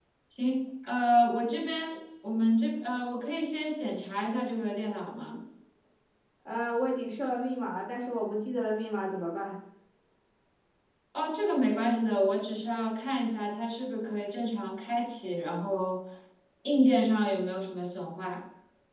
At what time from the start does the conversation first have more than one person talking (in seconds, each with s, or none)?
none